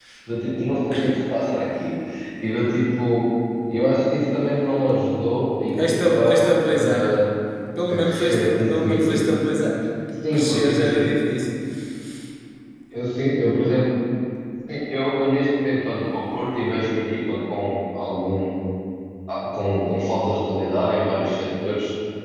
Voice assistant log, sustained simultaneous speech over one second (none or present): present